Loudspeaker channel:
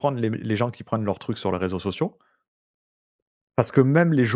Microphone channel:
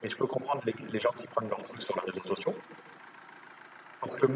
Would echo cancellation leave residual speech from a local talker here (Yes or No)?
No